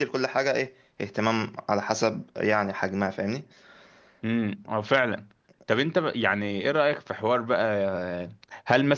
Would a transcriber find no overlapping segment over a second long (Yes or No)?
Yes